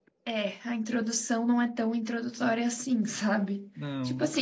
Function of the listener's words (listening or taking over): listening